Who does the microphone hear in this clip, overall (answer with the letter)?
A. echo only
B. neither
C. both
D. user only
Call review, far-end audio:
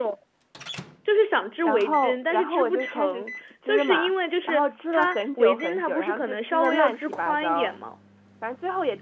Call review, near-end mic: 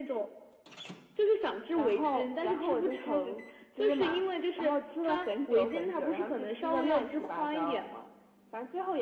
A